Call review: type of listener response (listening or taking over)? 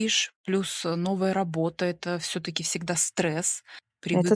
listening